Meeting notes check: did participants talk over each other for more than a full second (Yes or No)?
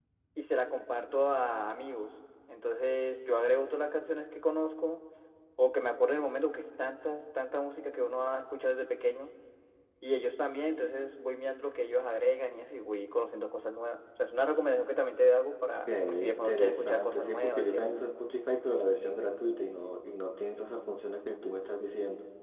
Yes